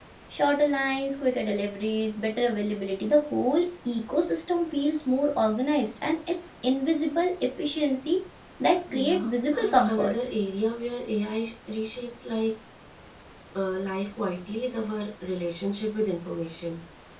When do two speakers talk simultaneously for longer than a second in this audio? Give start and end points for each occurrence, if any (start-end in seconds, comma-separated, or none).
8.9-10.1